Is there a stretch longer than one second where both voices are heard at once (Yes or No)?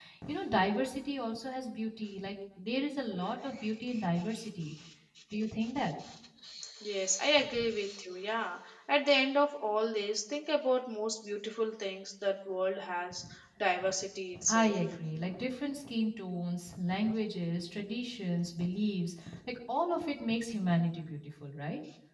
No